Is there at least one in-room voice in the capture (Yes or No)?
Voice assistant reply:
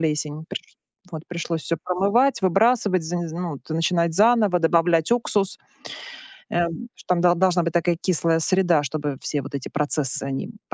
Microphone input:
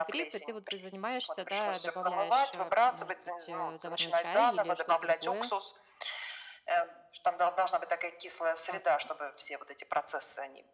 Yes